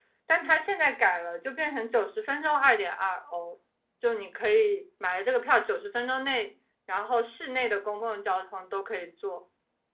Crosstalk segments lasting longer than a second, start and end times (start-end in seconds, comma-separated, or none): none